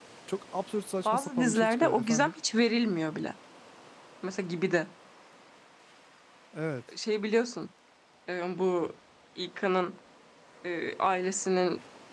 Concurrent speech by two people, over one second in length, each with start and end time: 1.1-2.3

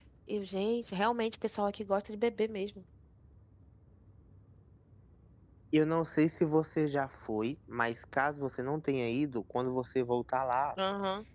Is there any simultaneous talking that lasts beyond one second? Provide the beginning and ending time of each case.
none

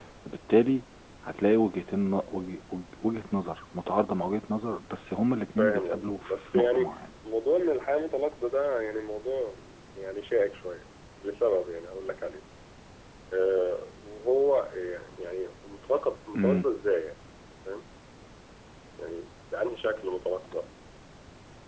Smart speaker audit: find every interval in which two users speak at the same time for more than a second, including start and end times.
5.6-7.0

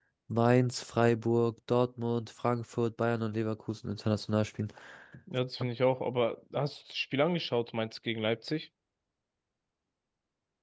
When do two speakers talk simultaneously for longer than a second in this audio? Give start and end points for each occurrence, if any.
none

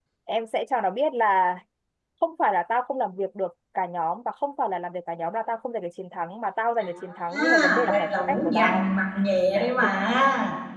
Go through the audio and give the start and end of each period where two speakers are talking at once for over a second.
7.3-8.9

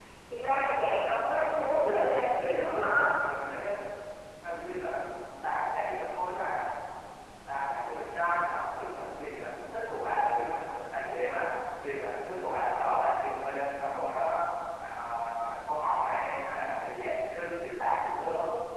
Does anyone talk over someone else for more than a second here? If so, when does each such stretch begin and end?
1.5-3.0

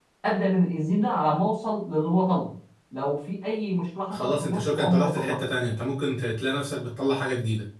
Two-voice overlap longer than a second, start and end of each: 4.1-5.4

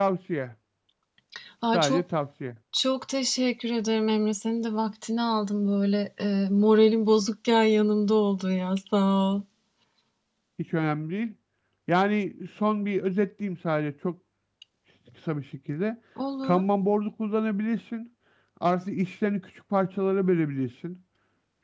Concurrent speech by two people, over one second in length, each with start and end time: none

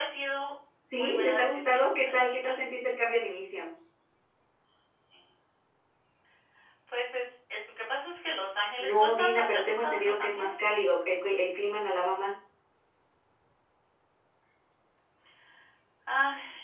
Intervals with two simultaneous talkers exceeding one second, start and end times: 0.9-2.6, 8.8-10.7

